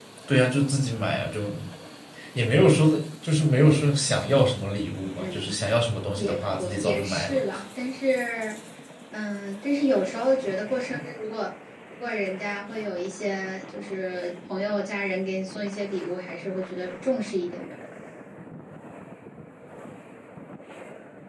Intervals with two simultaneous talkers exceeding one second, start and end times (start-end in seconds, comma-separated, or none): 6.2-7.4